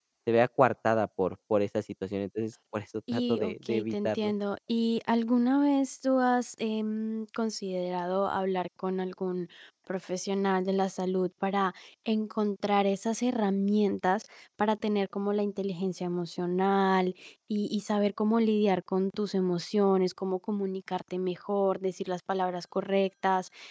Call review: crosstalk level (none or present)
present